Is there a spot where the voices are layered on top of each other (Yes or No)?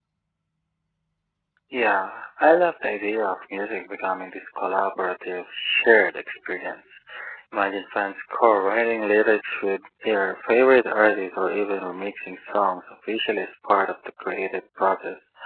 No